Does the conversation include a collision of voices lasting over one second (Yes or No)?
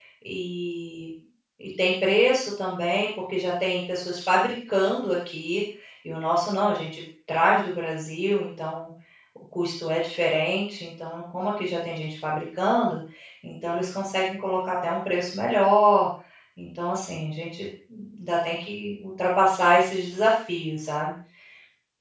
No